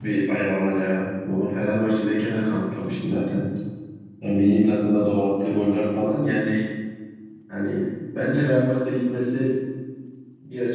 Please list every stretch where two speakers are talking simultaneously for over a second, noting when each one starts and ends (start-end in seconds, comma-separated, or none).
none